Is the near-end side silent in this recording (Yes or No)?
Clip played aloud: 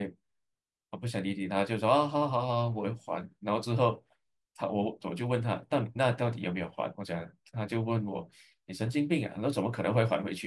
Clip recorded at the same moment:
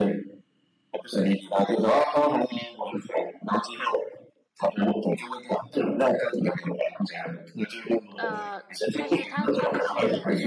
No